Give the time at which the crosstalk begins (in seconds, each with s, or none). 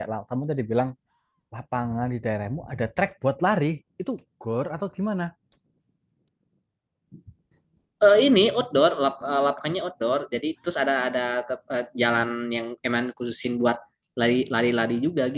none